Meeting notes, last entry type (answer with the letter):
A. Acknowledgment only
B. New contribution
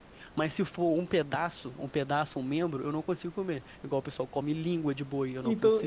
B